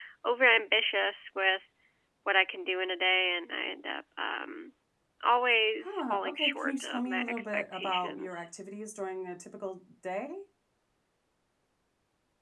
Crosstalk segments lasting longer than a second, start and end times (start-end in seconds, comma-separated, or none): 5.8-8.5